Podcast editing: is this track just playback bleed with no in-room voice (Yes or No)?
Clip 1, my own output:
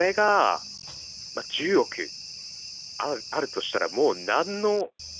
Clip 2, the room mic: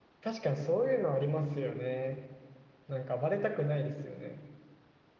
No